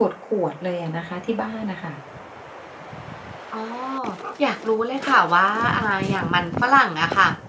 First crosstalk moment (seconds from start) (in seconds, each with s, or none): none